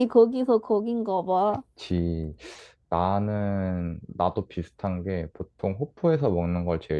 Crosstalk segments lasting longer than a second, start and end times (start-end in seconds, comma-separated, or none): none